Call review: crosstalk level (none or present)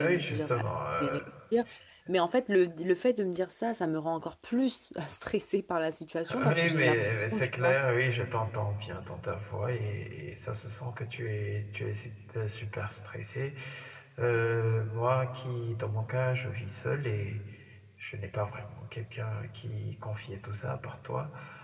present